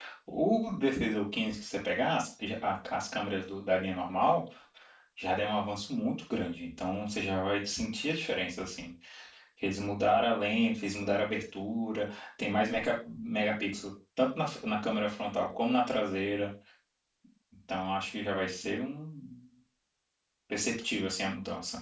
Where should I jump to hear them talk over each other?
none

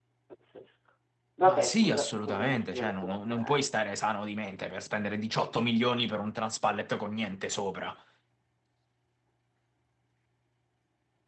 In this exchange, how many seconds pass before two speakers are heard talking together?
1.4 s

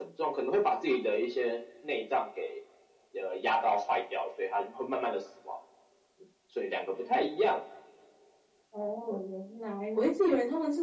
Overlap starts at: none

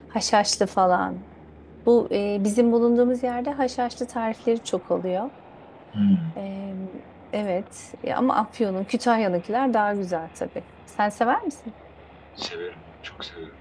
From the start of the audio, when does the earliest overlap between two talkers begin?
none

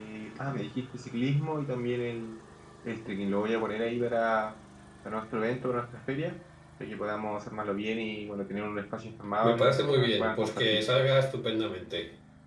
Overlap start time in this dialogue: 9.4 s

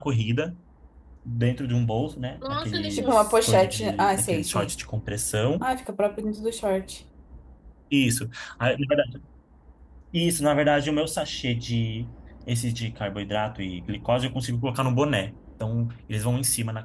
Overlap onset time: 2.4 s

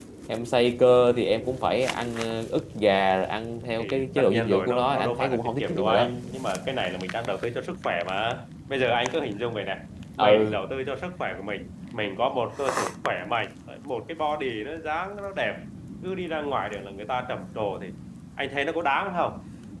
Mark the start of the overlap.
3.8 s

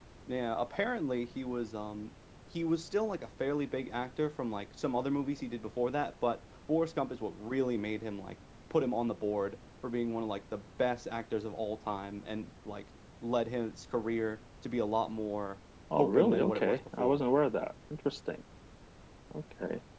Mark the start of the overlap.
15.9 s

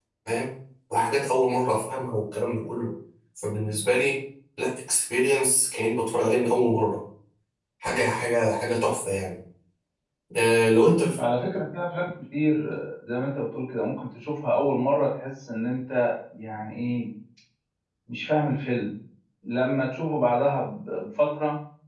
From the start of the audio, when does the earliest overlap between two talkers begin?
none

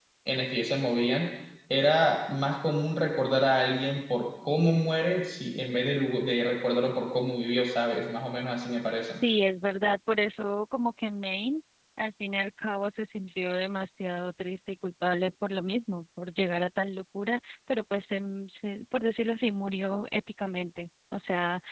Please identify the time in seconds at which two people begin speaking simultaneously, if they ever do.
none

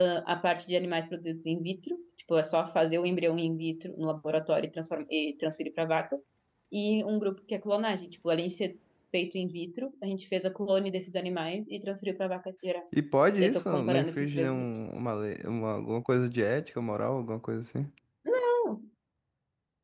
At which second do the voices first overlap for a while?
13.4 s

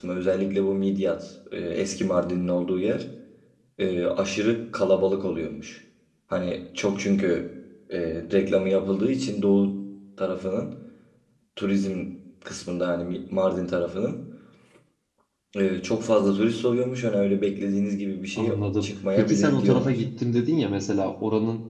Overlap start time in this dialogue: 18.4 s

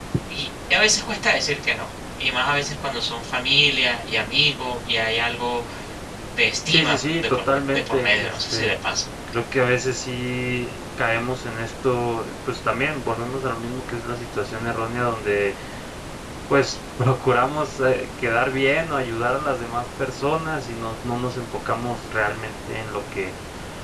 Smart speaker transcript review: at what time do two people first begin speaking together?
6.7 s

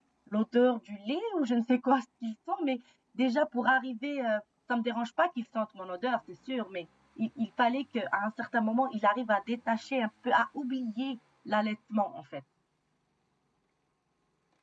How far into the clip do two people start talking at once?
none

